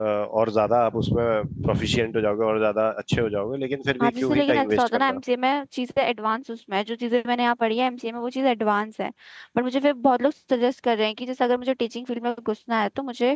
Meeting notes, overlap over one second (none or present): present